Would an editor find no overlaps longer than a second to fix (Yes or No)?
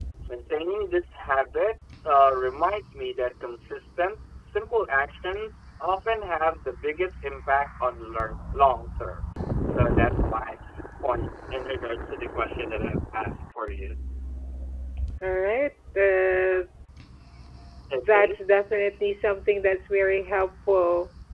Yes